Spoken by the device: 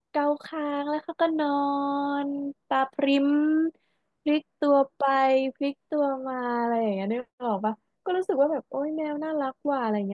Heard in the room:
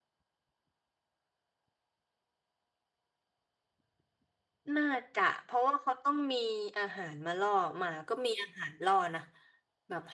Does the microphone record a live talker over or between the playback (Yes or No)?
Yes